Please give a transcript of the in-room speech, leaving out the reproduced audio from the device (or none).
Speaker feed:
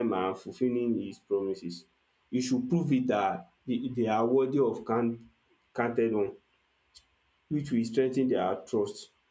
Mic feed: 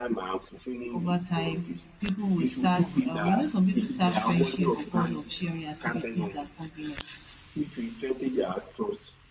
over time. People will start um, you know some people start friendship because of sharing activities and compliments.